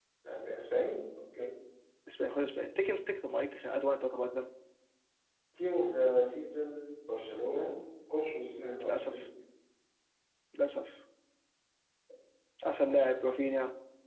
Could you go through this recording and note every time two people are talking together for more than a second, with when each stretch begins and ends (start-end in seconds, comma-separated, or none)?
none